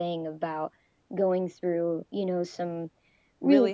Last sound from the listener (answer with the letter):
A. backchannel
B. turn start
B